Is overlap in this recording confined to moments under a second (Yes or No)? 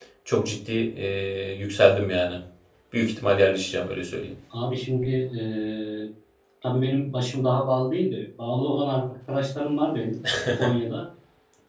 Yes